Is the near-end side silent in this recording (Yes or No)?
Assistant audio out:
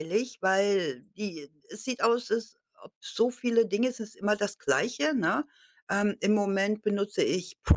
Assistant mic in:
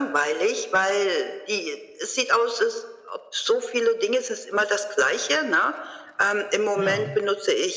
No